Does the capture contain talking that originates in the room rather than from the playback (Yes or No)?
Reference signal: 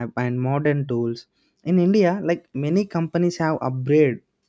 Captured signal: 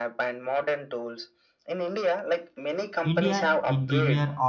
Yes